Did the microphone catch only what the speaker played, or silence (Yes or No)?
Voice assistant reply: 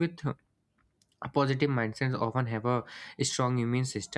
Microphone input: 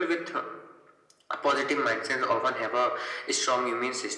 Yes